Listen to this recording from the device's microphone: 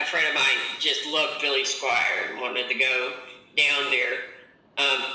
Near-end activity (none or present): none